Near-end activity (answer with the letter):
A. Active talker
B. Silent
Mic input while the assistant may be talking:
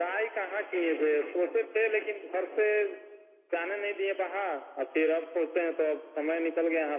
B